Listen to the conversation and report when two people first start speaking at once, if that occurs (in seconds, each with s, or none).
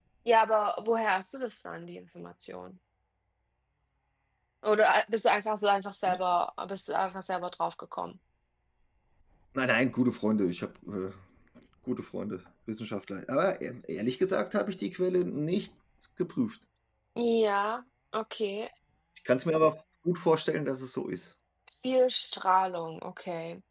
none